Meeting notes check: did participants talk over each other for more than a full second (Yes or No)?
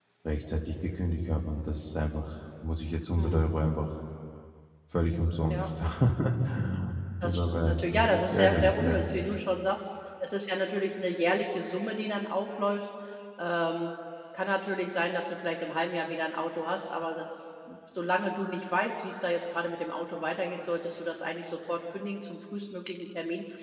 Yes